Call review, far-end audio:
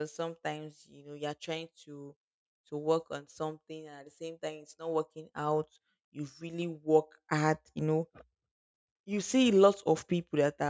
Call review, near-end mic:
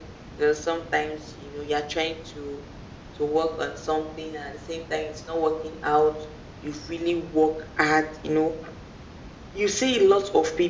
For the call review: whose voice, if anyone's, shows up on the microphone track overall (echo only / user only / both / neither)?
echo only